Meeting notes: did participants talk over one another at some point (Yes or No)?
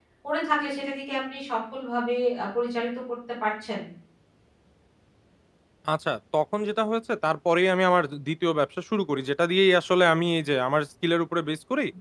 No